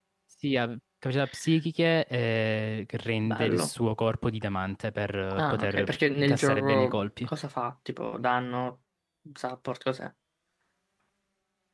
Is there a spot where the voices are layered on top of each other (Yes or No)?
Yes